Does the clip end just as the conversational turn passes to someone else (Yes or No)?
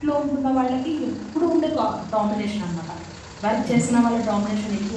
No